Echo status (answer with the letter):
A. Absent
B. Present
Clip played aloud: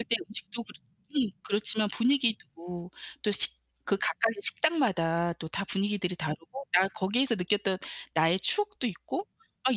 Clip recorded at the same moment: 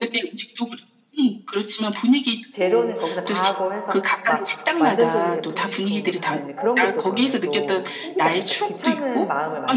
B